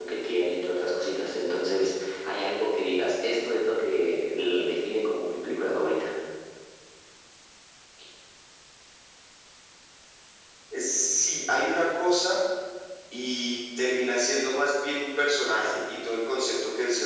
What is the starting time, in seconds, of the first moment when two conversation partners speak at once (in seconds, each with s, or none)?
none